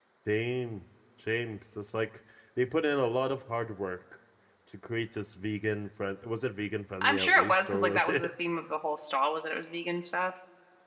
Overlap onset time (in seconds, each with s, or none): 7.0 s